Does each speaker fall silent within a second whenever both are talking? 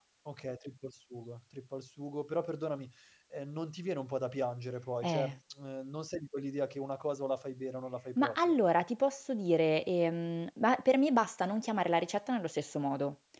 Yes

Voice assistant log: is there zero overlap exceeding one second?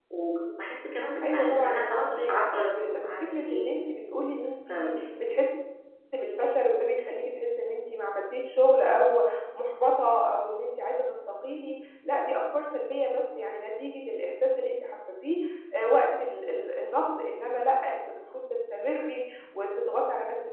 No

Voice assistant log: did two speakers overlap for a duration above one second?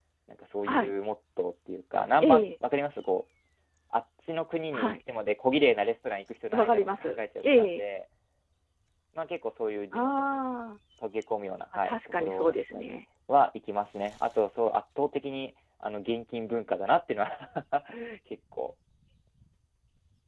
Yes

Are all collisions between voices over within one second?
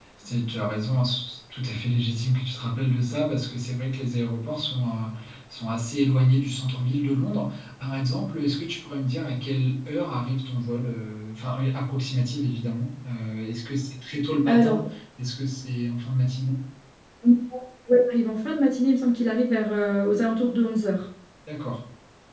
Yes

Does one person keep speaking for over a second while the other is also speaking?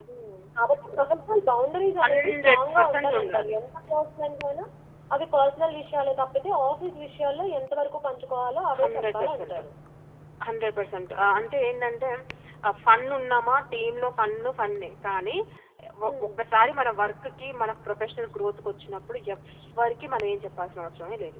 Yes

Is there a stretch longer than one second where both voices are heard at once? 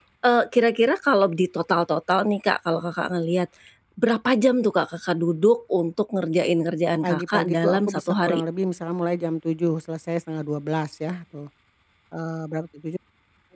Yes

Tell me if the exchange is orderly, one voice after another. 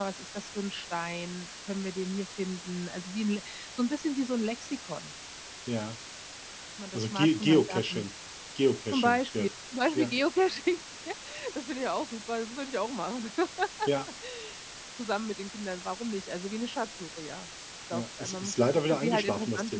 No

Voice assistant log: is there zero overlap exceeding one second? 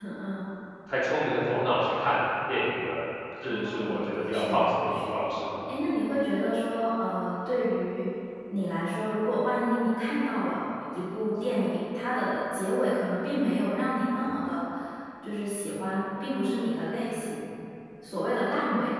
No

